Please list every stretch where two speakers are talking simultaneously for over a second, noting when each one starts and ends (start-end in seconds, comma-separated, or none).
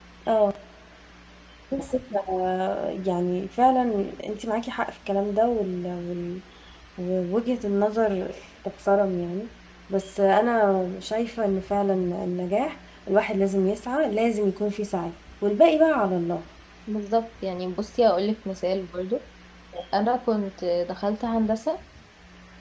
none